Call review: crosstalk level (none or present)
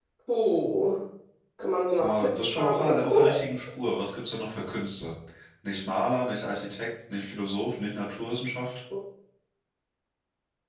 present